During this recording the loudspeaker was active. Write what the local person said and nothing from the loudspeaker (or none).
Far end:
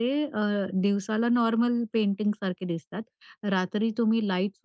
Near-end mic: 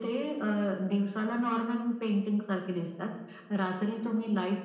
none